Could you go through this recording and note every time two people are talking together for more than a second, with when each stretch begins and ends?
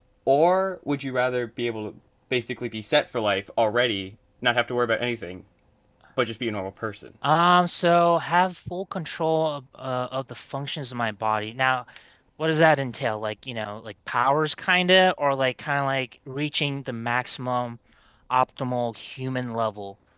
none

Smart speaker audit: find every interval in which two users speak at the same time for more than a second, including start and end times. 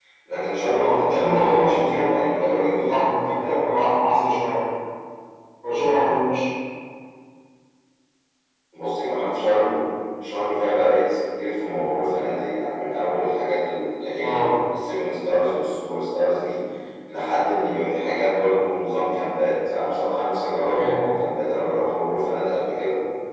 0.7-3.1

